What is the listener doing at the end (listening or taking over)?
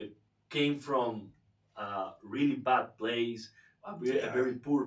listening